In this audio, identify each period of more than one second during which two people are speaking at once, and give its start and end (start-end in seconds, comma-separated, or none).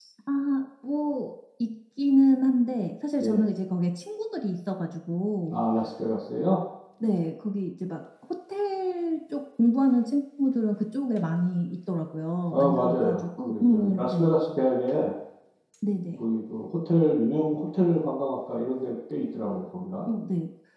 12.5-14.3